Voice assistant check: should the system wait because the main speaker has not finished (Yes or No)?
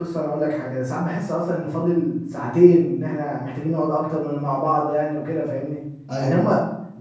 Yes